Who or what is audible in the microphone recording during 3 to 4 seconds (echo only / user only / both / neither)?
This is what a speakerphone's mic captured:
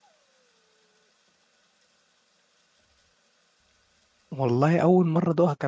neither